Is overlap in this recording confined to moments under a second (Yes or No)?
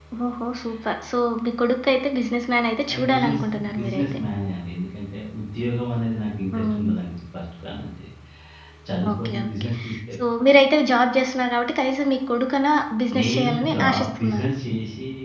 No